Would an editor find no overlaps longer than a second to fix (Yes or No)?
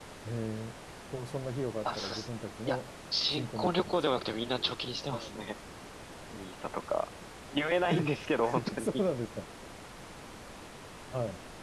No